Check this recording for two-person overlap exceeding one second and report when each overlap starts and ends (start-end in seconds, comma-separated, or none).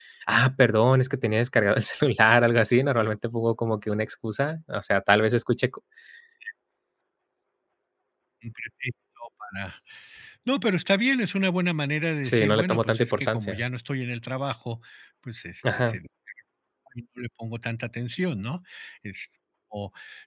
12.3-13.6